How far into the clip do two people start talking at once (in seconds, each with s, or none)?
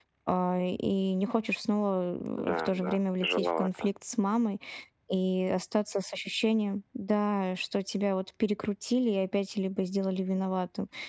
2.4 s